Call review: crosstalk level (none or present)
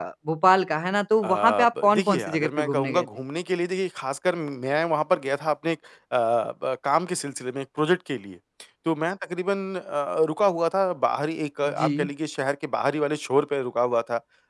present